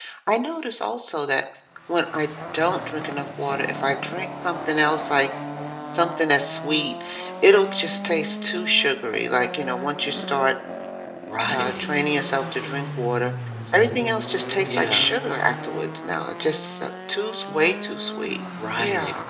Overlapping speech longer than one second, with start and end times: none

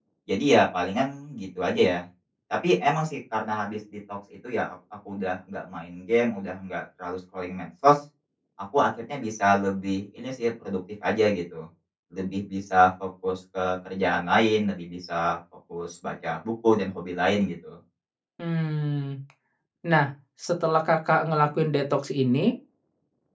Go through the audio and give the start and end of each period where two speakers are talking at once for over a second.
none

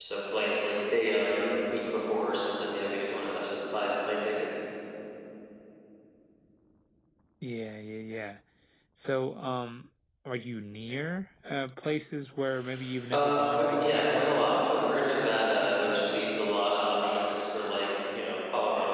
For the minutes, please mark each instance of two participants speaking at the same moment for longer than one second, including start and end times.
13.1-14.6

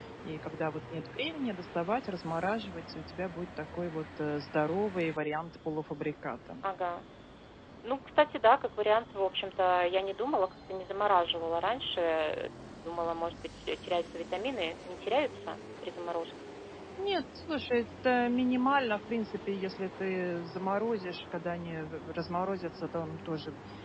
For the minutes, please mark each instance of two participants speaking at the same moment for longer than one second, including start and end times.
none

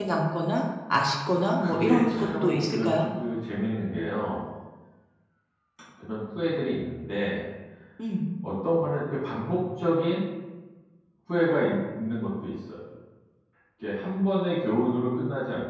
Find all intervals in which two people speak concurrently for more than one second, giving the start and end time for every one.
1.6-2.9

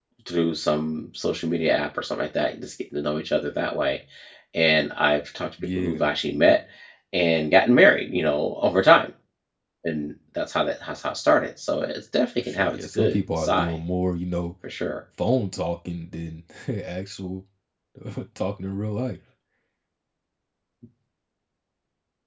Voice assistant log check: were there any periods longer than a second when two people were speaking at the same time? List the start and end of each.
12.4-13.8

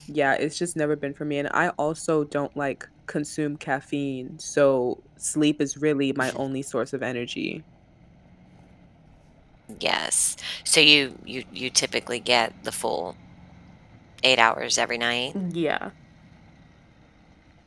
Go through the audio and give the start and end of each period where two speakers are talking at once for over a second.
none

